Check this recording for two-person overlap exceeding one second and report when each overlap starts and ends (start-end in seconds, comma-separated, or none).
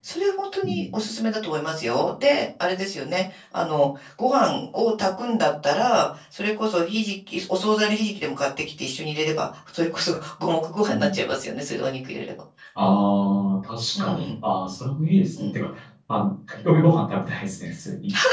none